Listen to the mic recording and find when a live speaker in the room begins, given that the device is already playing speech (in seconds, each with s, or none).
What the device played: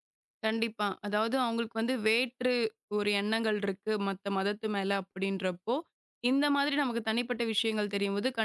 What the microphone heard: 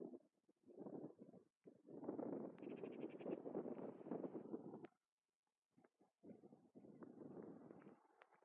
none